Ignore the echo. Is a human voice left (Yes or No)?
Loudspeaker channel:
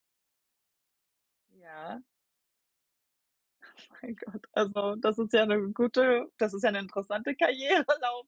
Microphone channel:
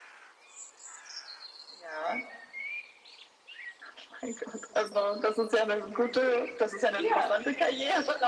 Yes